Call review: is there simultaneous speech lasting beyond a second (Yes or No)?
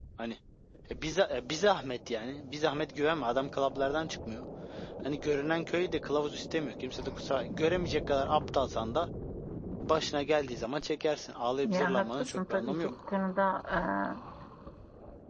Yes